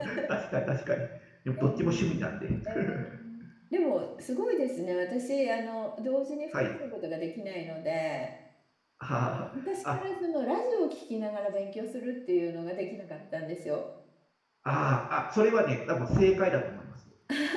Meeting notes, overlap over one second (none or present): none